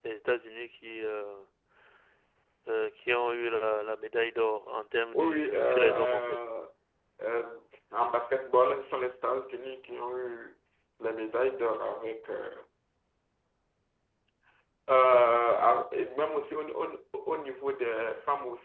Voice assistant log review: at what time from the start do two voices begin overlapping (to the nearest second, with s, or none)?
5 s